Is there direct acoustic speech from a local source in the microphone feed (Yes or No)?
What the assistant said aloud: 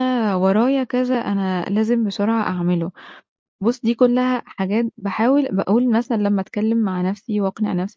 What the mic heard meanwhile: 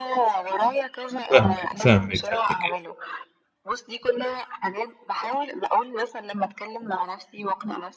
Yes